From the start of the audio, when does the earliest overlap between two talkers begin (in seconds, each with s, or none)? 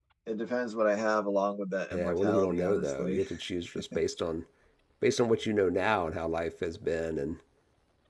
1.9 s